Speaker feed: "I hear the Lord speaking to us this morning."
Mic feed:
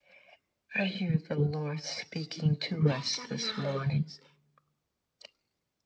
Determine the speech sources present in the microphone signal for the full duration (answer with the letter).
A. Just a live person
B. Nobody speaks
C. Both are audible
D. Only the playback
C